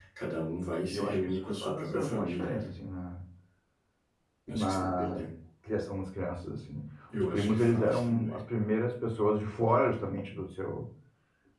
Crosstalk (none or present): present